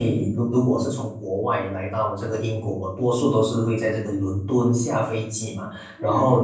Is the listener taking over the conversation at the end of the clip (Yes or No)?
No